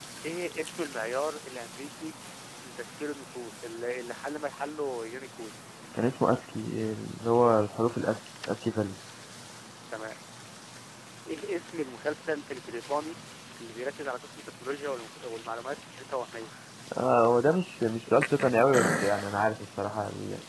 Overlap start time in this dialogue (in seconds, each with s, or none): none